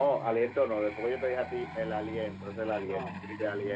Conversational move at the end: listening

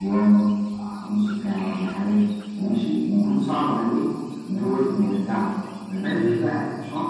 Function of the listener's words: listening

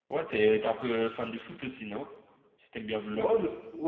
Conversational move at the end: taking over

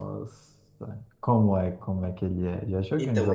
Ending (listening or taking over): taking over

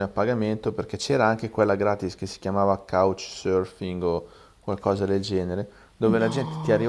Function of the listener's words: listening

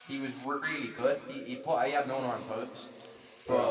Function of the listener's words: taking over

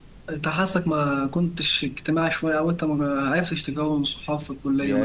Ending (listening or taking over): taking over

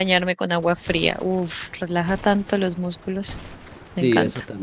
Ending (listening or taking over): taking over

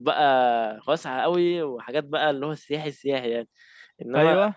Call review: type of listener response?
listening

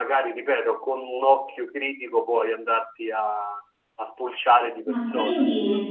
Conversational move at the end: taking over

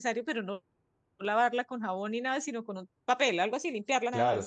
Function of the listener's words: taking over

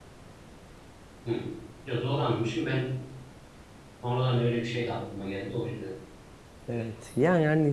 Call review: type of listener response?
taking over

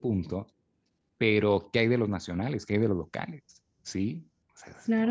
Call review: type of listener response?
taking over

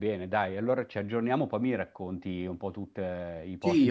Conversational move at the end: taking over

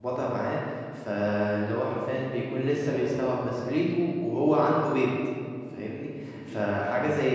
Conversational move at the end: listening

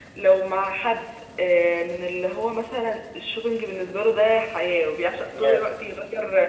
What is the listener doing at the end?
listening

